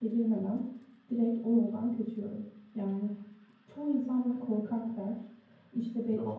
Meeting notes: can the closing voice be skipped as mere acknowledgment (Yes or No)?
Yes